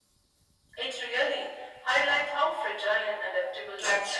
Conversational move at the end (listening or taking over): taking over